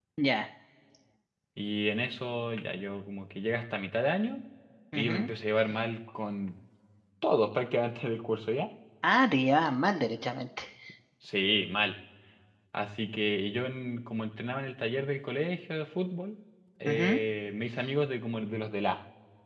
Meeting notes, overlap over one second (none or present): none